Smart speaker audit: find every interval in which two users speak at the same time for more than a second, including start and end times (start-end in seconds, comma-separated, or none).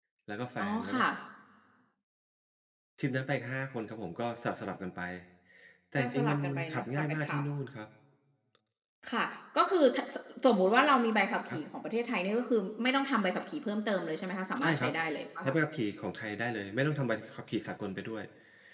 6.0-7.4